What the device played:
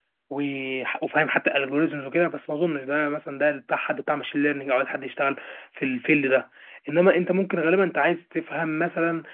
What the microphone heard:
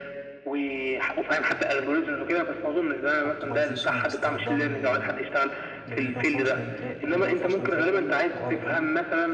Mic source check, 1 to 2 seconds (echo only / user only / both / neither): echo only